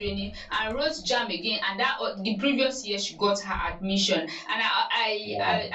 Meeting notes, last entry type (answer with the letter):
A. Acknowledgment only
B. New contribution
A